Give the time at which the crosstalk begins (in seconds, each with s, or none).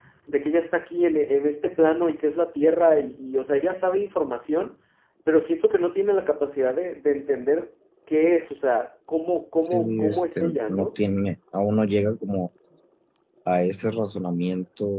9.7 s